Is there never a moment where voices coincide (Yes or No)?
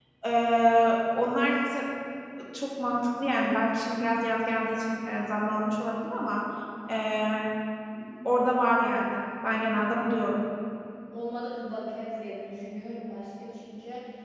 Yes